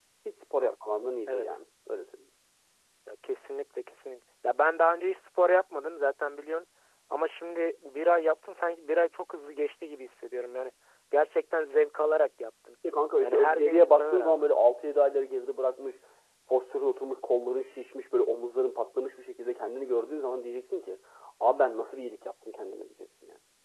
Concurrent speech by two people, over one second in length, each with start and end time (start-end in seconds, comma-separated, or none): 13.2-14.5